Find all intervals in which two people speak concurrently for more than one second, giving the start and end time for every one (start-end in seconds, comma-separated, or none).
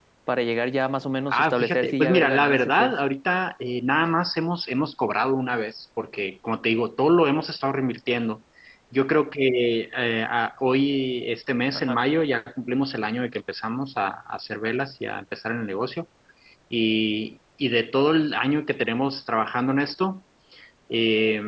1.3-2.9